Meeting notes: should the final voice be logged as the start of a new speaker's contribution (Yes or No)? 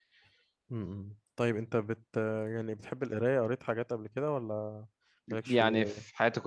Yes